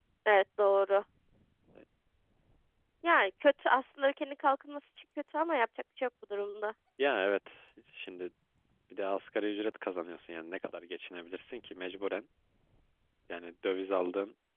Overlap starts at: none

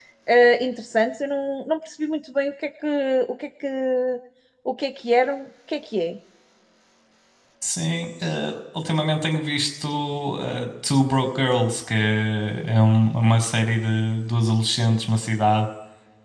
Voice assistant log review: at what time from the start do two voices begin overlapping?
none

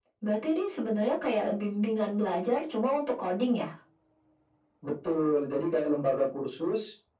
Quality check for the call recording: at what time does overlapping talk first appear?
none

